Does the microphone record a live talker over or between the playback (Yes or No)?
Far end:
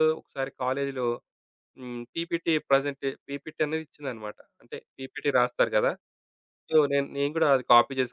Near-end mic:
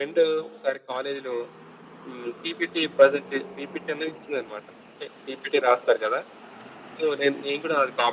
No